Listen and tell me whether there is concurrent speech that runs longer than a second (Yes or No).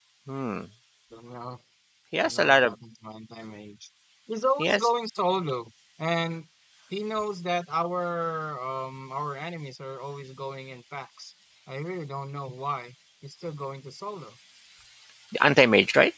No